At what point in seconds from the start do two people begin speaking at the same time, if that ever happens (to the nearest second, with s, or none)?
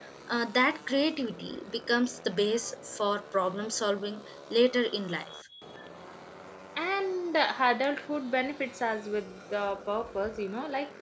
none